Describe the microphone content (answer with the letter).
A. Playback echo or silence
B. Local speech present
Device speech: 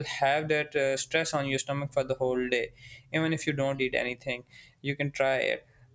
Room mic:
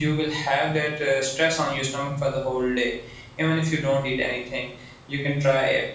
A